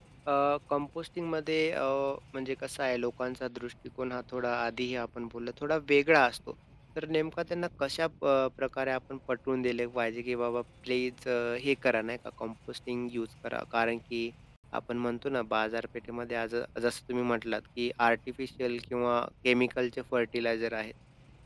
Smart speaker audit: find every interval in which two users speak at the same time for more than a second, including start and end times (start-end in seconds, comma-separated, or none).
none